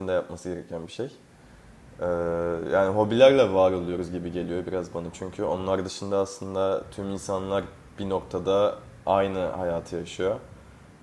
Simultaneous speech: No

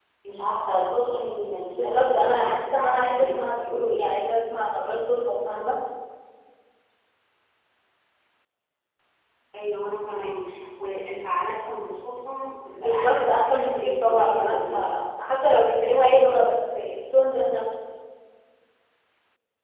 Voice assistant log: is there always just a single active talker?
No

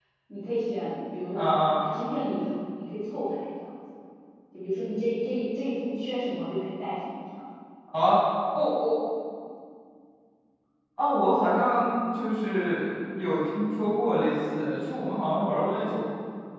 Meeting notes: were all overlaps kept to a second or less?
Yes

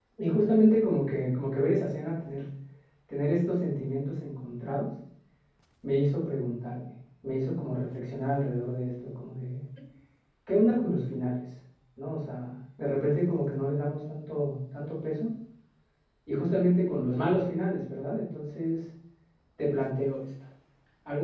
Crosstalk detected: No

